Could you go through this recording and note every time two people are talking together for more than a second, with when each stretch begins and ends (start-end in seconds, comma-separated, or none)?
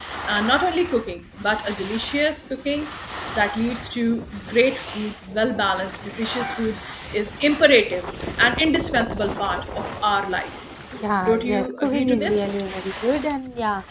11.3-12.5